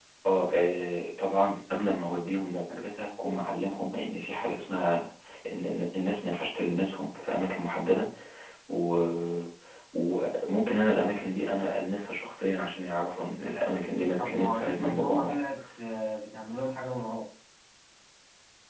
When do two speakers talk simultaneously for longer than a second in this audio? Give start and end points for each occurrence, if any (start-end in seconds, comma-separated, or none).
14.2-15.4